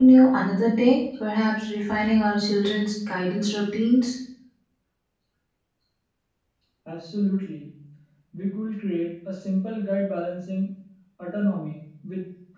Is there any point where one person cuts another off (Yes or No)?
No